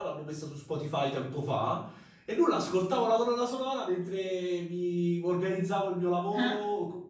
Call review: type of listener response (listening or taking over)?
listening